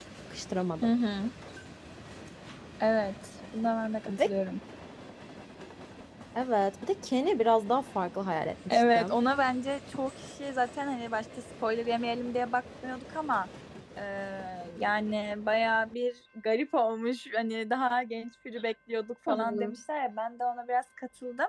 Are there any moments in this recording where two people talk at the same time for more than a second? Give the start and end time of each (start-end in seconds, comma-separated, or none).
none